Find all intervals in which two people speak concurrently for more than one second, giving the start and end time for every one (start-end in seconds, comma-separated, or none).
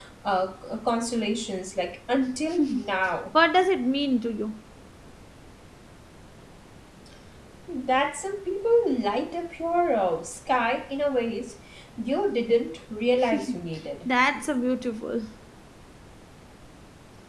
none